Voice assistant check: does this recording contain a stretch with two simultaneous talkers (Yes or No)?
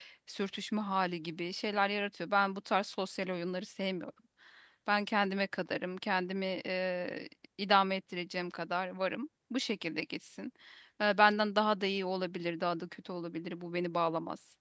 No